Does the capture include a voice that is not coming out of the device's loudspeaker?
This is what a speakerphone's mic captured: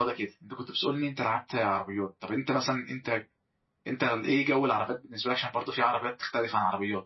Yes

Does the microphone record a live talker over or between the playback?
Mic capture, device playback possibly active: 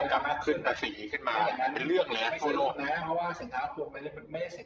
No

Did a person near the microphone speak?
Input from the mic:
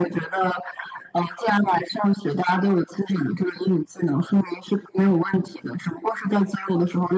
No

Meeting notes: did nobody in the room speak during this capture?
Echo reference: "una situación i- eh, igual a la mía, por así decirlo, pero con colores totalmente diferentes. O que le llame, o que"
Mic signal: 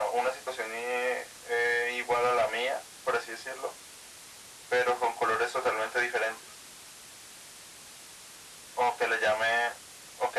Yes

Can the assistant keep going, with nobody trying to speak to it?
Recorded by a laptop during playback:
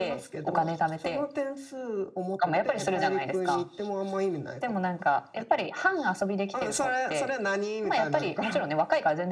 Yes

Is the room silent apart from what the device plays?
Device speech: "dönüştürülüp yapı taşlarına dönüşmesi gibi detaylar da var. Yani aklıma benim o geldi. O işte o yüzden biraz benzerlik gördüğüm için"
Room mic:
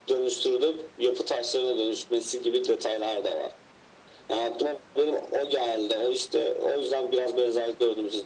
Yes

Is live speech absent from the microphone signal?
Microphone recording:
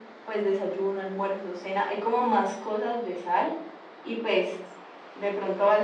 Yes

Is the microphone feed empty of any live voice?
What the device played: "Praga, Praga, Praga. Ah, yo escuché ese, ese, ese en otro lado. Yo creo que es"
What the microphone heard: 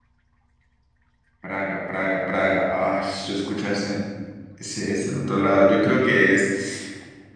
Yes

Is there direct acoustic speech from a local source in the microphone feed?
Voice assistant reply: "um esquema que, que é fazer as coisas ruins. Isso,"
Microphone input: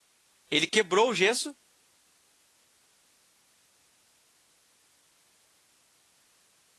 Yes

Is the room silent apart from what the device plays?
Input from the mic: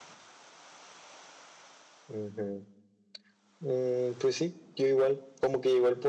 Yes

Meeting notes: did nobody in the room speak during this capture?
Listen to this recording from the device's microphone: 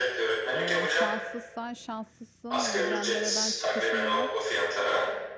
No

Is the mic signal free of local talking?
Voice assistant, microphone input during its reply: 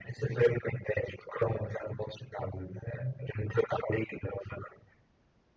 Yes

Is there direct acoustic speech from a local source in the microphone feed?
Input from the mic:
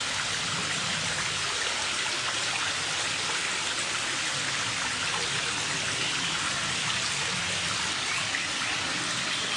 No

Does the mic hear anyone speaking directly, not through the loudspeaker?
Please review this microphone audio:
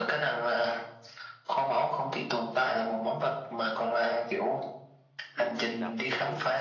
Yes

